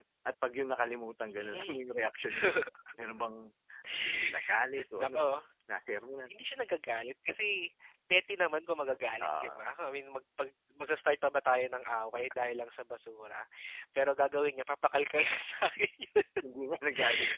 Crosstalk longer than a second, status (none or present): none